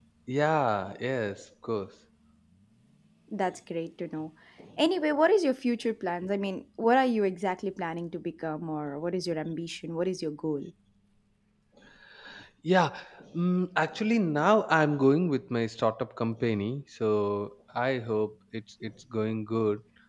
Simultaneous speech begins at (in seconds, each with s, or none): none